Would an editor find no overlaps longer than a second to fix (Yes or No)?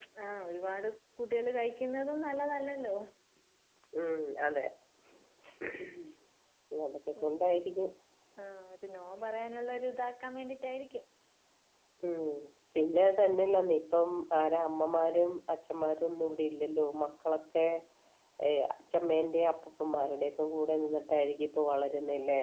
Yes